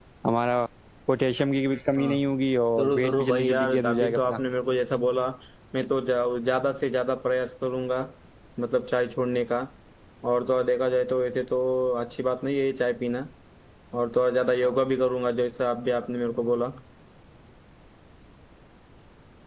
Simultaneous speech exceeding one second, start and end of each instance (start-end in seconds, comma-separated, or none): 2.8-4.4